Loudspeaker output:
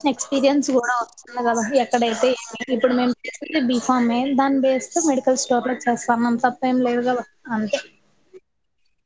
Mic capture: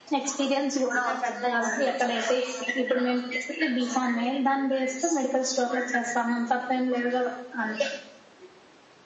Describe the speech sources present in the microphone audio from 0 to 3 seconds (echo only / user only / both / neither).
both